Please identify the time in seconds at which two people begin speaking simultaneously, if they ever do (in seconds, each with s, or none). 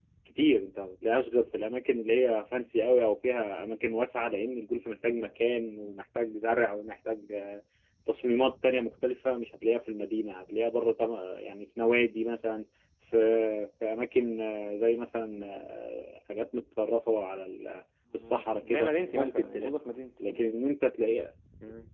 18.1 s